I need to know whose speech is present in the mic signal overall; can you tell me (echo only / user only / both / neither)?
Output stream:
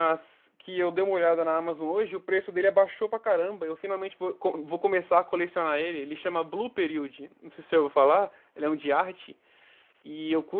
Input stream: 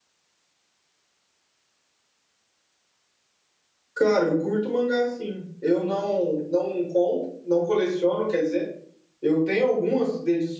user only